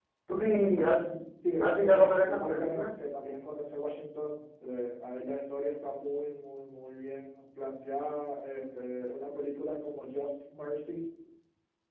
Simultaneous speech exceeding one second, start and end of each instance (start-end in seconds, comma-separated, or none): 1.6-2.9